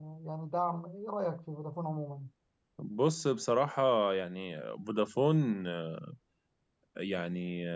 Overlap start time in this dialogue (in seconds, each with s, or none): none